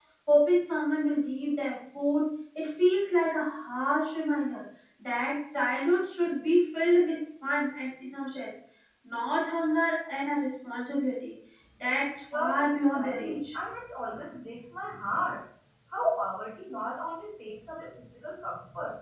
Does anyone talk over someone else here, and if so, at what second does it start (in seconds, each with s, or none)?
12.3 s